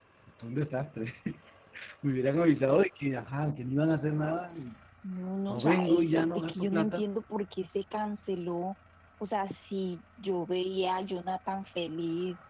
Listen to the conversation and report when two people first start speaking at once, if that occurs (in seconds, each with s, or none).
5.5 s